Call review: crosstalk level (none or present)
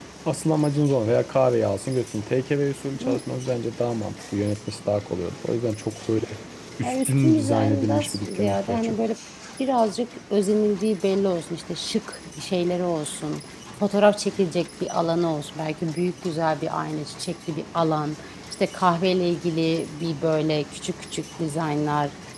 present